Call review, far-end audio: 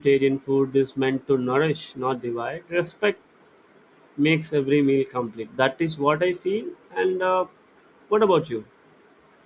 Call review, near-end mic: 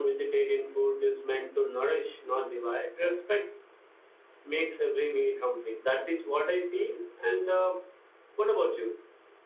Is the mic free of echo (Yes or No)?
No